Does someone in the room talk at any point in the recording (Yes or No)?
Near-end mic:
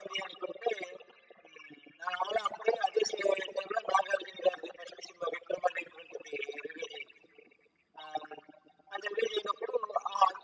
No